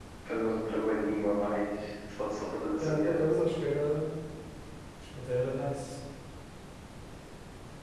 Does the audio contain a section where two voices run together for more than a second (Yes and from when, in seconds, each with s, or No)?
No